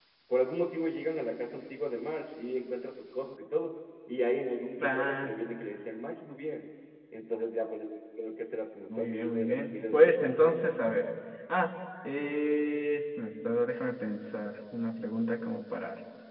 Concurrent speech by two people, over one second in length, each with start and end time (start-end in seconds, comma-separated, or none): 8.9-10.6